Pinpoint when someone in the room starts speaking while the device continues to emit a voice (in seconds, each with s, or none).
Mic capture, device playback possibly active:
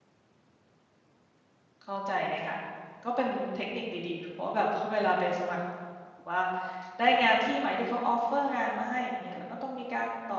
1.8 s